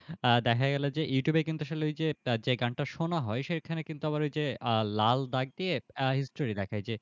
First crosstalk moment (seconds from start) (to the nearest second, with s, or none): none